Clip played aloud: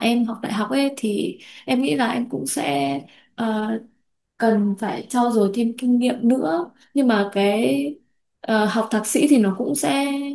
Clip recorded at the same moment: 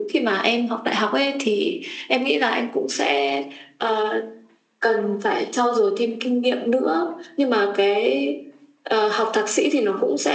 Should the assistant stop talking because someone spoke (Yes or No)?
No